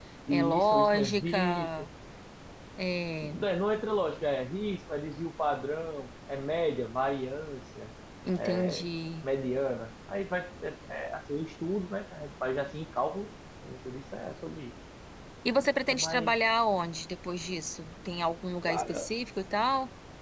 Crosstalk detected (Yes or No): Yes